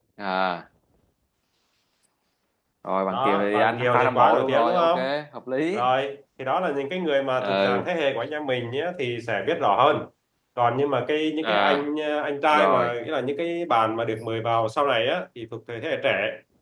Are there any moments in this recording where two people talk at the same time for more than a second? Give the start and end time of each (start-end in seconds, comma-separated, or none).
3.1-4.9